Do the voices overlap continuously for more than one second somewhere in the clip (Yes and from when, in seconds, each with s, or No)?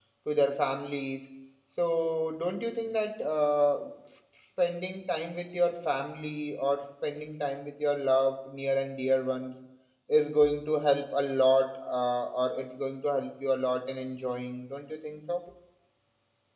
No